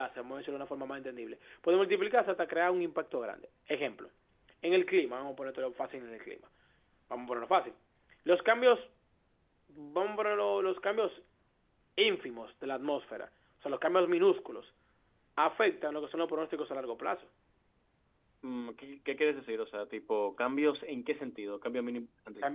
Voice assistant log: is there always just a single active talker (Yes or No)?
Yes